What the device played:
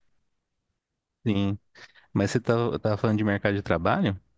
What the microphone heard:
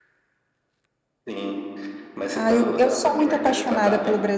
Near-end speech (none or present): present